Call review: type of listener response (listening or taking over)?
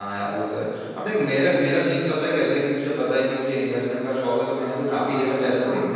listening